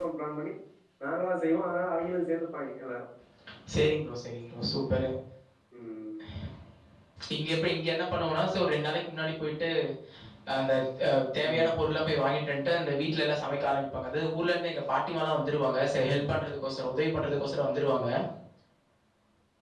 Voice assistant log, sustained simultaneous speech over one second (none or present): none